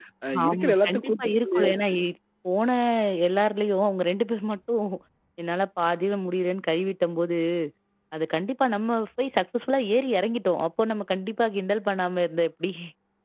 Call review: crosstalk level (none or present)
present